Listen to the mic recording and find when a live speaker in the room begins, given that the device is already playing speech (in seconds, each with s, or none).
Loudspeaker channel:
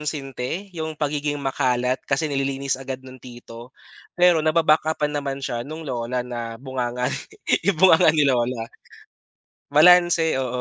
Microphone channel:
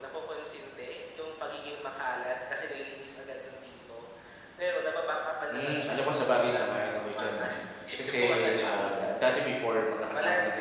5.5 s